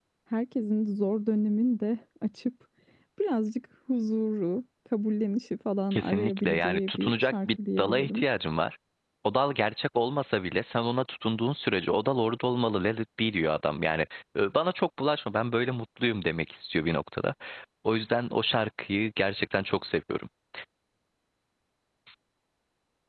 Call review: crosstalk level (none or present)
present